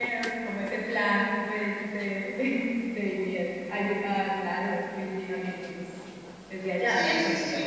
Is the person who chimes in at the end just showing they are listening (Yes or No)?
No